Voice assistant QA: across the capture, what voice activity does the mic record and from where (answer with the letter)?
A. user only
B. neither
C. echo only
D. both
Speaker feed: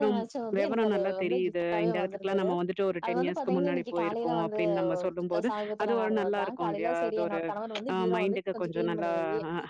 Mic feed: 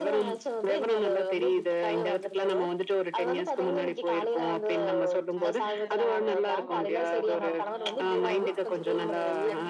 D